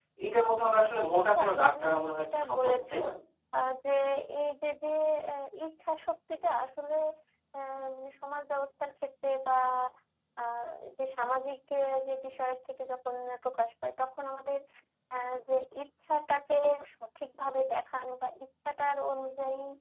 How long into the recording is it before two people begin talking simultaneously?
1.3 s

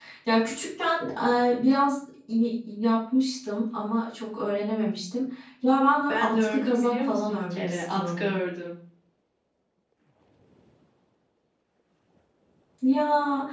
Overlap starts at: 6.1 s

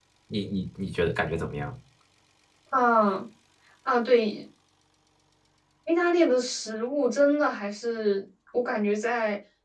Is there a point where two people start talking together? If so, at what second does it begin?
none

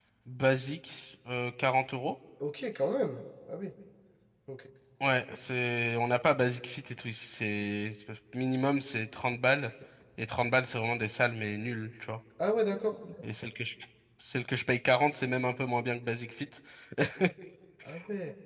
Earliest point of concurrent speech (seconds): none

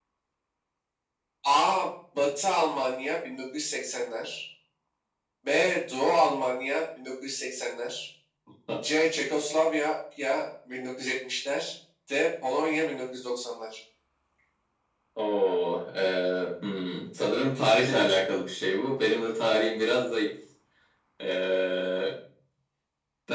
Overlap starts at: none

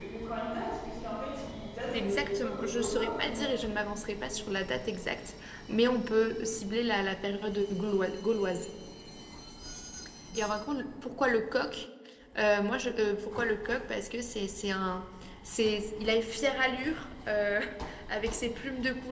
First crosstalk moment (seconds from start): 1.9 s

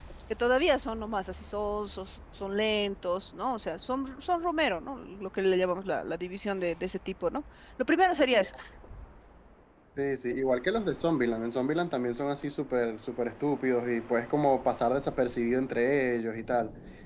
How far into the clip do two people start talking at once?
none

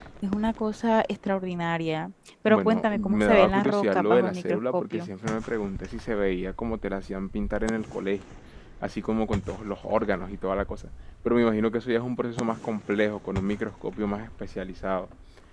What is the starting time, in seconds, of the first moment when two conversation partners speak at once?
2.5 s

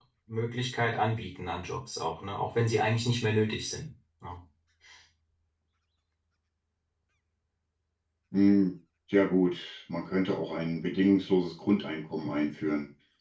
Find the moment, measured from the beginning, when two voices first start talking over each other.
none

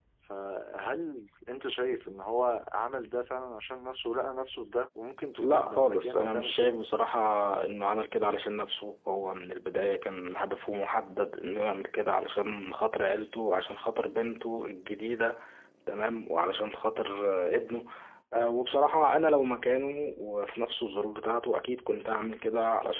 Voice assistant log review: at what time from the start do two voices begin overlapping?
5.4 s

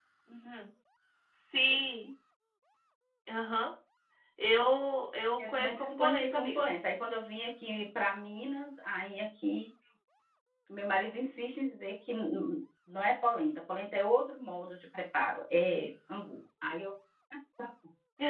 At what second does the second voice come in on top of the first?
5.4 s

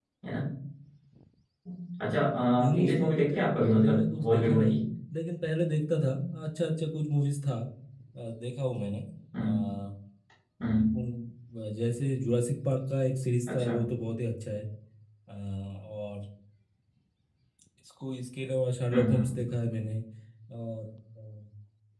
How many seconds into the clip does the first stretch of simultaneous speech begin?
2.6 s

